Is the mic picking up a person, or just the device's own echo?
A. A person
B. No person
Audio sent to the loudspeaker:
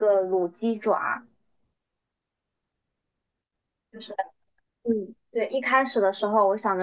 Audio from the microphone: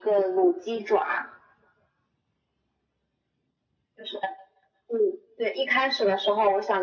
B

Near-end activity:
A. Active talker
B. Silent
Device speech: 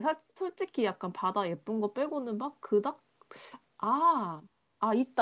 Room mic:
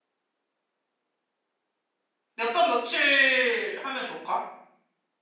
A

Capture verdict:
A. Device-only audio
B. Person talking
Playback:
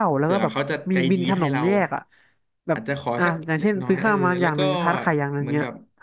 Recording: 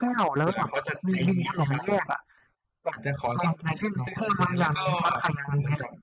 A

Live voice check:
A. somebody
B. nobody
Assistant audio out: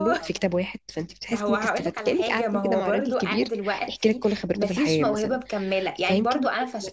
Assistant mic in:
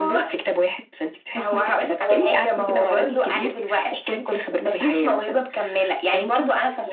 A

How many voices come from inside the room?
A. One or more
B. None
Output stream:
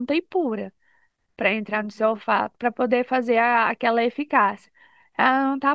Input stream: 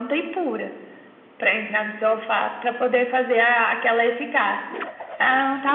B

